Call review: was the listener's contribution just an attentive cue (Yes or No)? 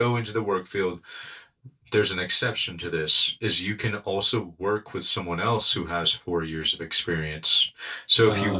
Yes